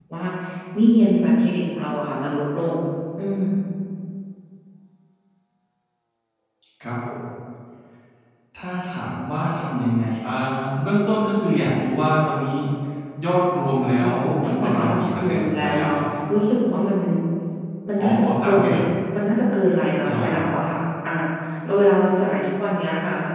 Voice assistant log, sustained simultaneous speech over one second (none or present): present